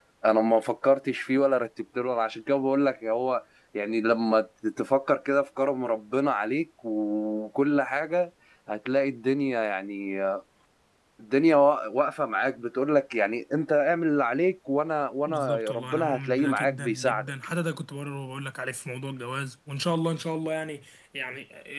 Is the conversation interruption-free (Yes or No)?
No